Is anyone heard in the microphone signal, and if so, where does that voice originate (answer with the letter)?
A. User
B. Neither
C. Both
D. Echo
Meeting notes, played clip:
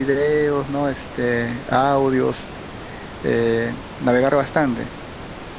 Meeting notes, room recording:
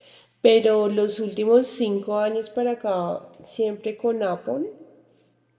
A